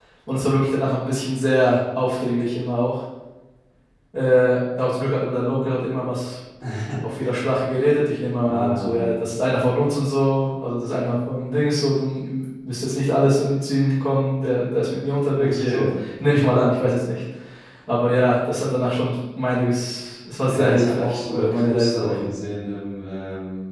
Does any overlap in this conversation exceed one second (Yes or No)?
Yes